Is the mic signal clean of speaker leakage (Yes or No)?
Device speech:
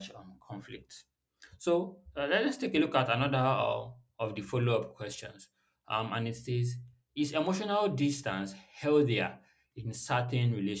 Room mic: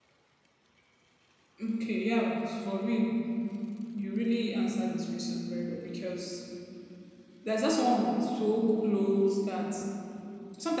Yes